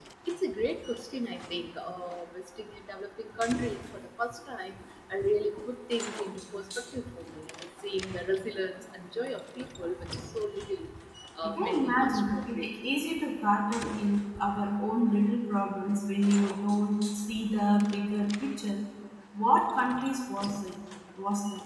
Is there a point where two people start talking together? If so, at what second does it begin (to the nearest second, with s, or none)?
11 s